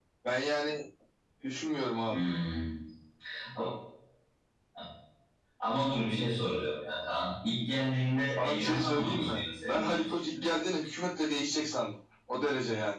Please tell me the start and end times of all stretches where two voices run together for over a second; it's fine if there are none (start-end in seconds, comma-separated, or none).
8.4-10.3